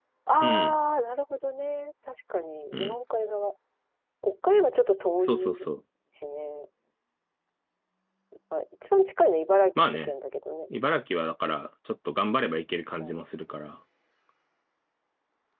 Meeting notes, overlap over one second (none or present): none